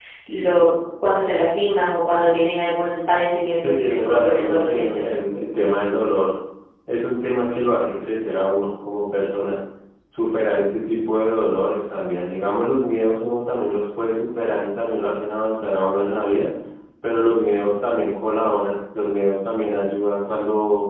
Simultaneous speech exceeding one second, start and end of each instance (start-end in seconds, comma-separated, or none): 3.6-5.1